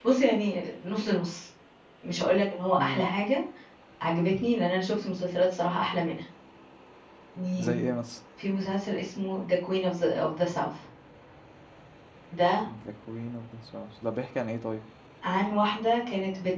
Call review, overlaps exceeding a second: none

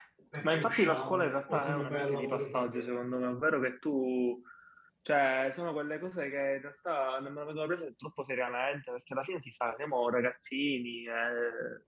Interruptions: present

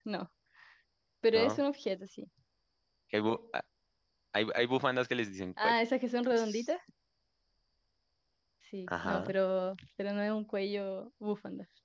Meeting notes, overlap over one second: none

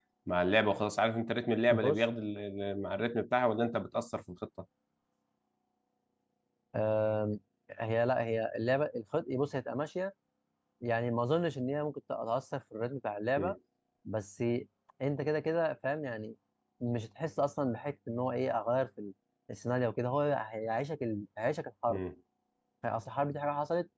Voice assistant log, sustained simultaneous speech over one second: none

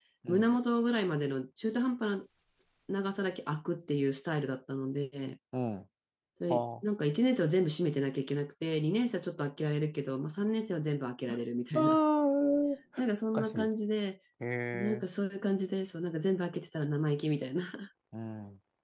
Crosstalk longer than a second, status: none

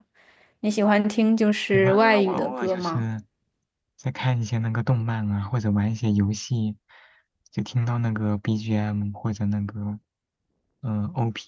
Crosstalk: present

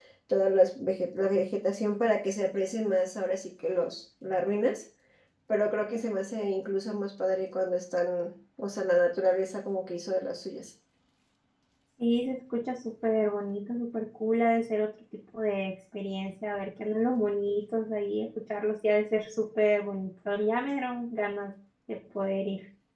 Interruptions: none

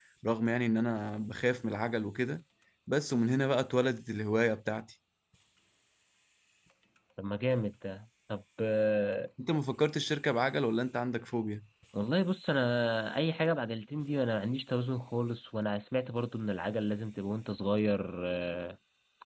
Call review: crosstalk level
none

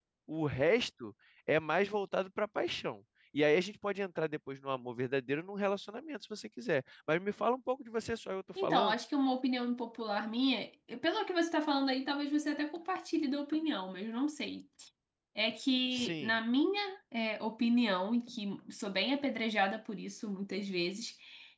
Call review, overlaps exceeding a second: none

